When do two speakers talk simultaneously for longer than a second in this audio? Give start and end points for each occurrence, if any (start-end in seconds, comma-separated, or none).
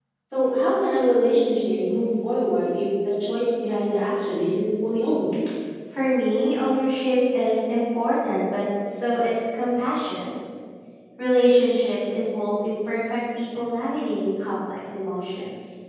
none